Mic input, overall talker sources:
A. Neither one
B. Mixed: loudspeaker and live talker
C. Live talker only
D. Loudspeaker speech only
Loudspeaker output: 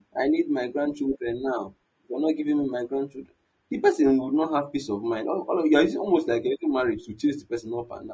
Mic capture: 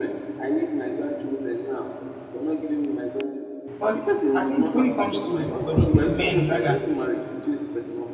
B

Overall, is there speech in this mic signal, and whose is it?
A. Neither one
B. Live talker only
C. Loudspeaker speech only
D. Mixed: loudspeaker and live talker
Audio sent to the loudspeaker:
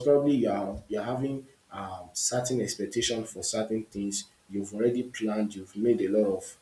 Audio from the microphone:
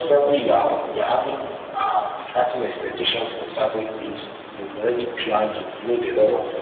C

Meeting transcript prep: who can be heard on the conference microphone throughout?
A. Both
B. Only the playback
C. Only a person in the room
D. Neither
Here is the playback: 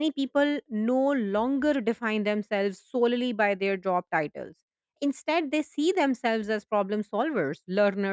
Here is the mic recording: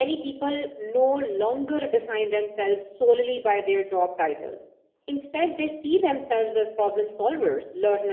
B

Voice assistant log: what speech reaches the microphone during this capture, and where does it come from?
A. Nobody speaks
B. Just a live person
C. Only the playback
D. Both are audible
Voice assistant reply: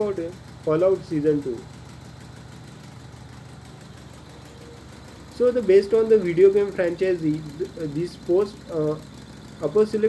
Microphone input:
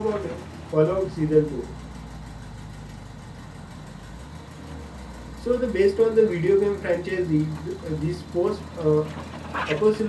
C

